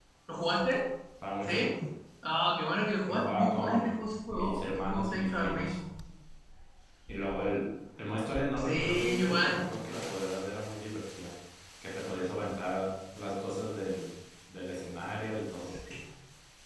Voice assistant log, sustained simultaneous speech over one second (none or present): present